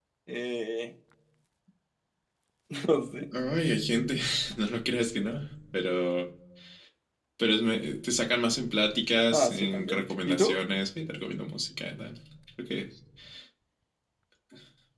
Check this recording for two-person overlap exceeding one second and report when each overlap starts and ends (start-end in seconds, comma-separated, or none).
9.3-10.6